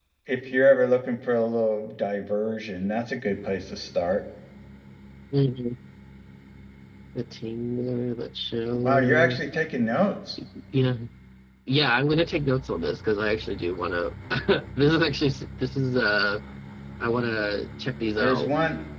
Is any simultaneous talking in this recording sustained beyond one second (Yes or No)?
No